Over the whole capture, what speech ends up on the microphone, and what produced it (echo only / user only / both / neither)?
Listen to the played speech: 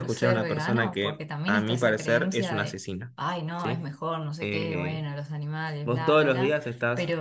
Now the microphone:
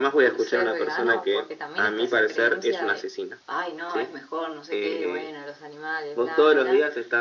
echo only